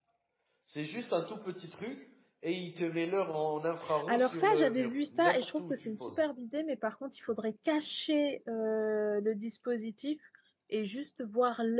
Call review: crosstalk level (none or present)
present